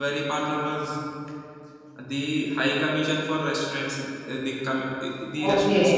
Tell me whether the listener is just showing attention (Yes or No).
No